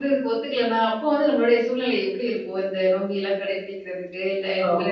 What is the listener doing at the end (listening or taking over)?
taking over